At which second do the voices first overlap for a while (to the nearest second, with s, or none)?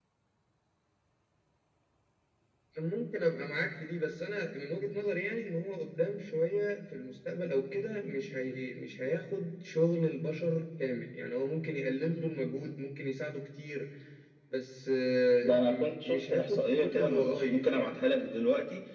15 s